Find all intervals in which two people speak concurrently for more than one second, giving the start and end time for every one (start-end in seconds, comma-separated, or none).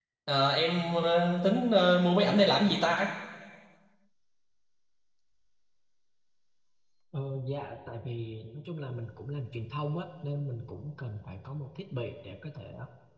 none